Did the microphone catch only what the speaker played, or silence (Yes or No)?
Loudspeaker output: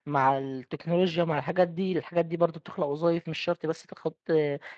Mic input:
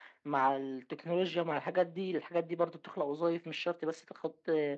Yes